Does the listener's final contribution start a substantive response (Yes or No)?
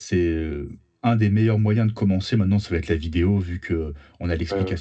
No